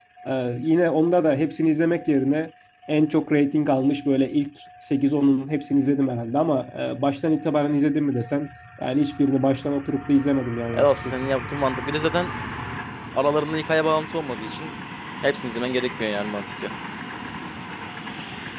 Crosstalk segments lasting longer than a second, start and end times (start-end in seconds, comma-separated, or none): none